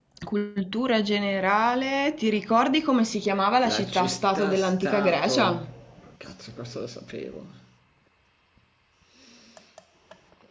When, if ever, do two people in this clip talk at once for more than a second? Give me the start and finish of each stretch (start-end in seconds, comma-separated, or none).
3.6-5.6